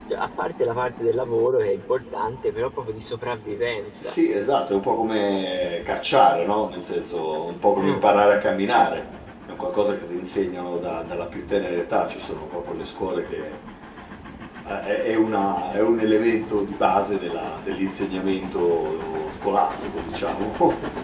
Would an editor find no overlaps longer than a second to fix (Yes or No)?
Yes